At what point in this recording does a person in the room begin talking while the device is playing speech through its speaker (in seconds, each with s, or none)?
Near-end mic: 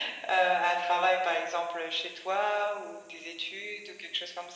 none